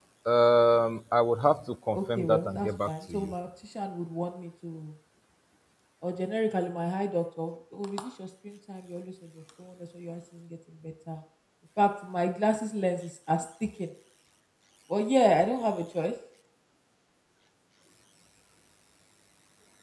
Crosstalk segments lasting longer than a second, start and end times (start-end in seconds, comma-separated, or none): 2.0-3.3